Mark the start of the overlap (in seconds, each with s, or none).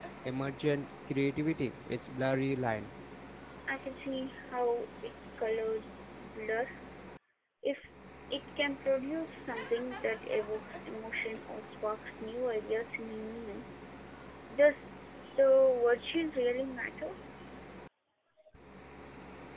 none